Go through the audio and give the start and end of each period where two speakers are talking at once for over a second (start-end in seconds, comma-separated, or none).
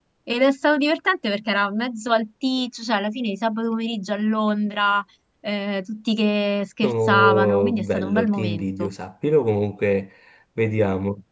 6.8-8.9